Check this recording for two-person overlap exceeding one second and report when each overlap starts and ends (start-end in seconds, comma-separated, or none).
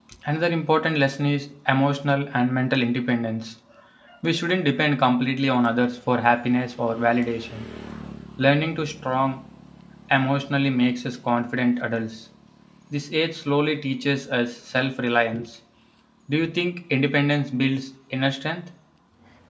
none